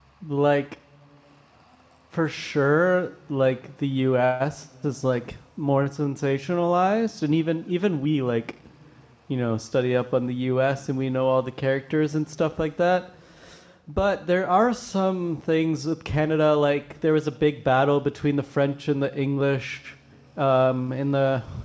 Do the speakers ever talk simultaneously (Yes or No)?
No